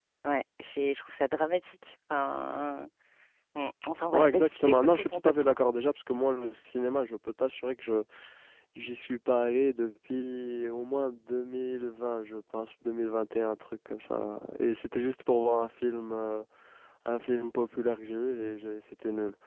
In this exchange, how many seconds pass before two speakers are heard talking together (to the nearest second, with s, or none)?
4 s